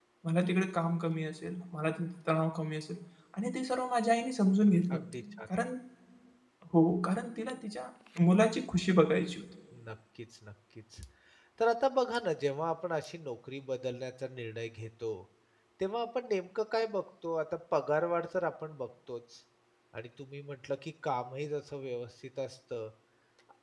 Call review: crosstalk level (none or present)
none